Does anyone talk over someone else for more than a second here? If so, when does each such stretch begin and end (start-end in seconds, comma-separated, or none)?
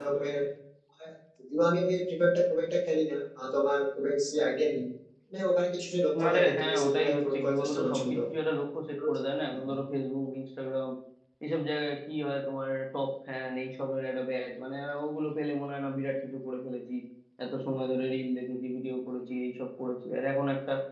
6.3-8.2